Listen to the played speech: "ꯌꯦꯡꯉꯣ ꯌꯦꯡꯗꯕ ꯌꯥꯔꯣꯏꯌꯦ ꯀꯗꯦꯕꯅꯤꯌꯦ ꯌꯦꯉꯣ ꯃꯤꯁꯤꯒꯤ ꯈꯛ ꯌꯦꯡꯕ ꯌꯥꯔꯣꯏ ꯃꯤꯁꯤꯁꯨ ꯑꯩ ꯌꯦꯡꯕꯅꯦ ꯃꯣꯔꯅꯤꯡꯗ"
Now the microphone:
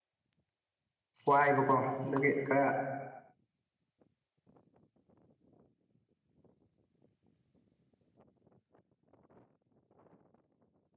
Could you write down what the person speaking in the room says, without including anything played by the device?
ꯋꯥꯏꯕꯀꯣ ꯑꯗꯒꯤ ꯈꯔ

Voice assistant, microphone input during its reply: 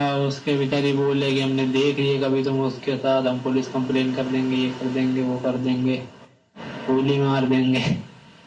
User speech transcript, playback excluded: none

